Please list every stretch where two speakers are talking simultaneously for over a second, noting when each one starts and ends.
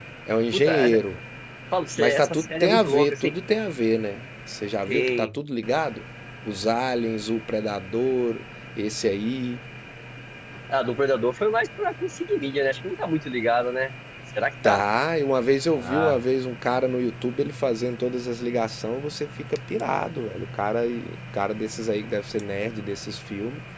2.0-3.3

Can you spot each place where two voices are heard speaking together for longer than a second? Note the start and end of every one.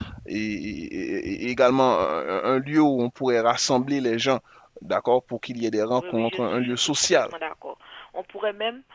6.0-7.2

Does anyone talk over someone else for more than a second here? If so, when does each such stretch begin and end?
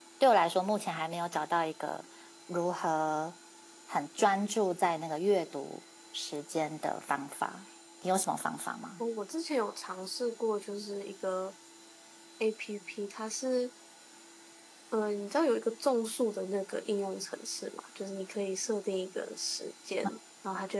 none

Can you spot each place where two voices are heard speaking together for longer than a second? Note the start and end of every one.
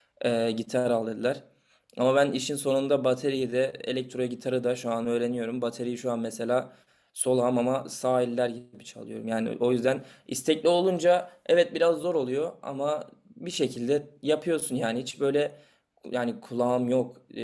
none

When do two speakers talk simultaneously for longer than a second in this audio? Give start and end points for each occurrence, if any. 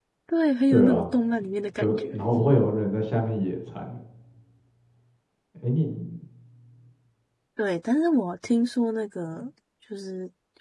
none

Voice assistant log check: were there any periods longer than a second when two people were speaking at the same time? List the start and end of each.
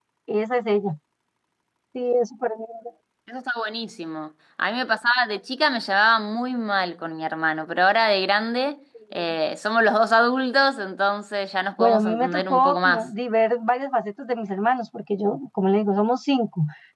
11.8-13.1

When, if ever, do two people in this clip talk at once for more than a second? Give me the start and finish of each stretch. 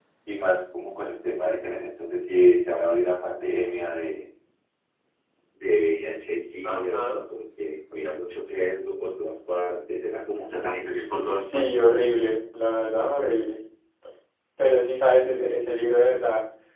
none

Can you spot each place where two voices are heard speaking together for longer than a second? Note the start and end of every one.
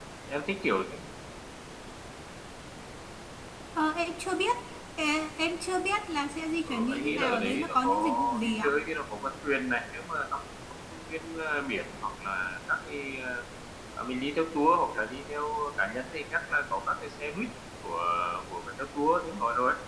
6.7-8.7

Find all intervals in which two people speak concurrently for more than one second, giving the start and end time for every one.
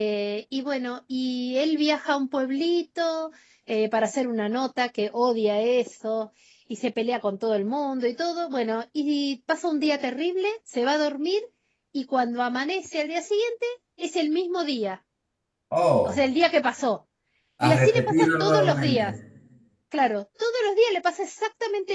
17.6-19.2

